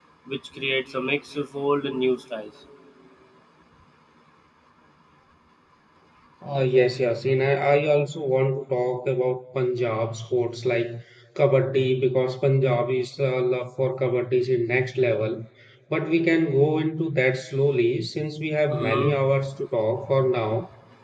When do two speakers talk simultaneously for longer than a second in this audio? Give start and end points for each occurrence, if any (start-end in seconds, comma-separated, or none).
none